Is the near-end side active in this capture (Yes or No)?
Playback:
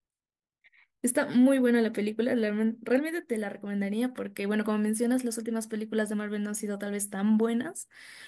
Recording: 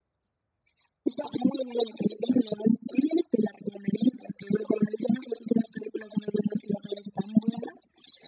No